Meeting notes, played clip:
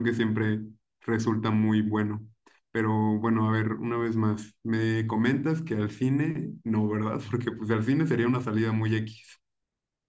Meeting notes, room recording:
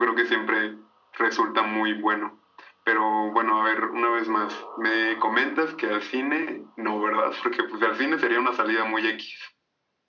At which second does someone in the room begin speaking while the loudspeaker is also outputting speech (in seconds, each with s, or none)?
none